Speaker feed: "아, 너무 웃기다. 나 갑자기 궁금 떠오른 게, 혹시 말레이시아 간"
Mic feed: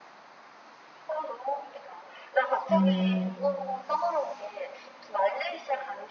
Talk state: both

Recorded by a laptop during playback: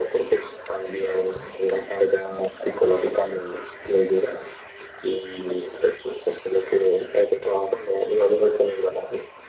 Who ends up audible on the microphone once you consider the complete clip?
echo only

